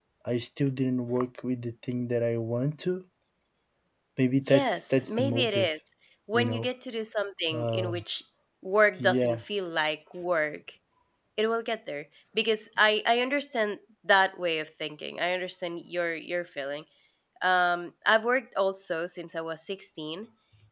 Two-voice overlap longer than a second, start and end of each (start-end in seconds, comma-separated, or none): 4.4-5.7